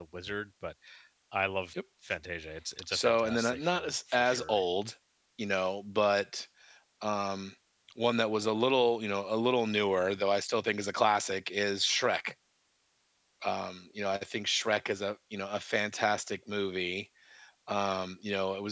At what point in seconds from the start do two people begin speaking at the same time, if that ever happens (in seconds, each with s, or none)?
2.9 s